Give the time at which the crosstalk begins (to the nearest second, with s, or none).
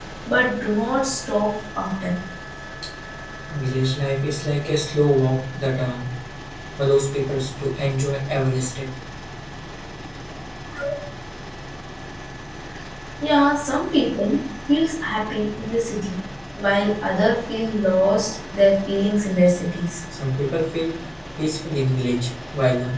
none